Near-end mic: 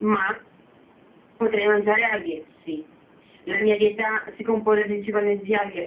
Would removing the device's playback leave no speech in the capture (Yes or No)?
Yes